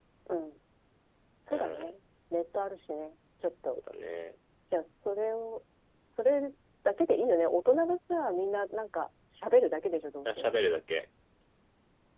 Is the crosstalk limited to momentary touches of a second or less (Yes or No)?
Yes